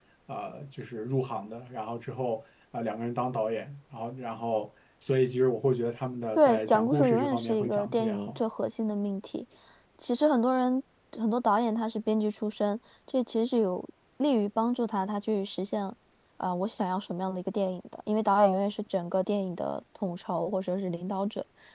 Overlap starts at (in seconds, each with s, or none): 6.3 s